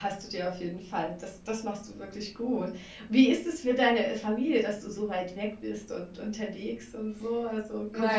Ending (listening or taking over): taking over